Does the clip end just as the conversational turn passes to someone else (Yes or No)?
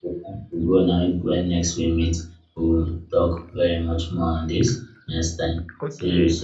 Yes